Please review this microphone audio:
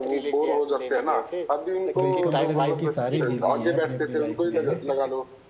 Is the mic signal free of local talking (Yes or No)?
No